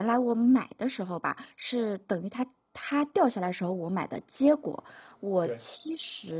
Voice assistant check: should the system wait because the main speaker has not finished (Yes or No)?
Yes